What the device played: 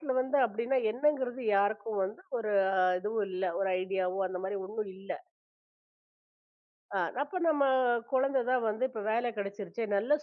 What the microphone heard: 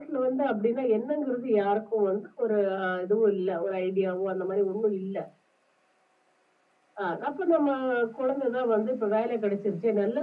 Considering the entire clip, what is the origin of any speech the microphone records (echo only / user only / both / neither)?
echo only